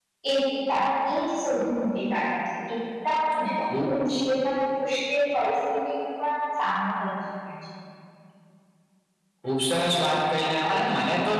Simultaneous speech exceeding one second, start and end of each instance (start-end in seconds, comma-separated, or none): none